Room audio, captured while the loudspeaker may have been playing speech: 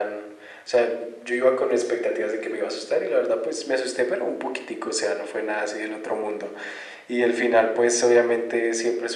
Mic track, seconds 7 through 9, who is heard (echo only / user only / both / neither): echo only